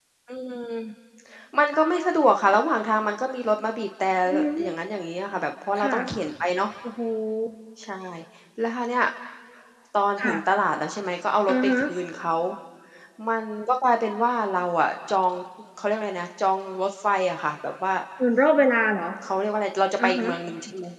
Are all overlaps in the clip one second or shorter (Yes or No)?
Yes